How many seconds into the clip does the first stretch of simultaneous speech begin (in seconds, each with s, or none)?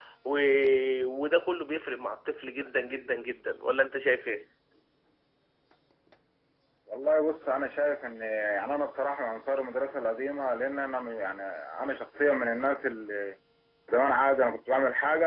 none